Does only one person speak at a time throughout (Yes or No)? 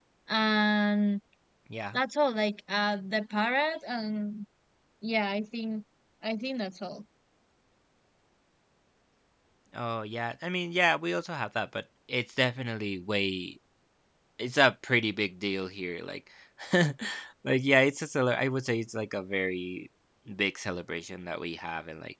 Yes